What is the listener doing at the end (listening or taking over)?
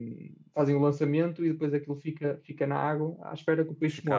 taking over